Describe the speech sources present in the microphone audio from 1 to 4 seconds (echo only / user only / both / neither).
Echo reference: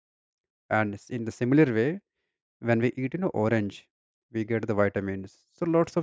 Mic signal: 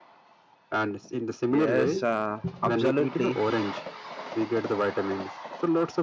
both